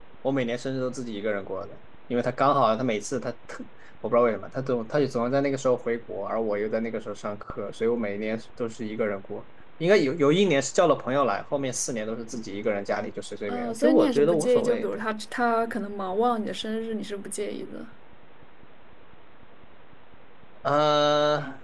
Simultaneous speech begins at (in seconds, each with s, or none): 13.5 s